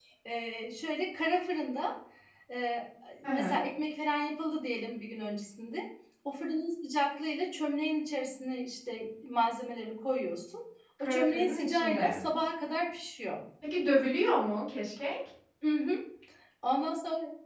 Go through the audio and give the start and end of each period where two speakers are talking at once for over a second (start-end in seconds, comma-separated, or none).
11.0-12.2